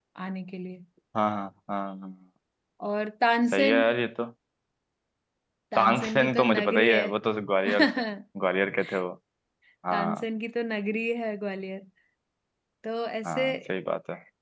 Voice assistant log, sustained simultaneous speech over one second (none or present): present